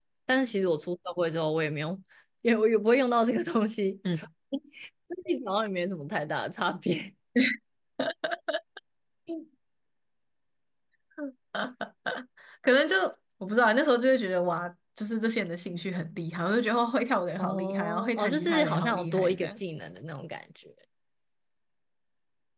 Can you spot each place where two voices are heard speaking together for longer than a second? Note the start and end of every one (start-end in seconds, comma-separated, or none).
17.4-19.6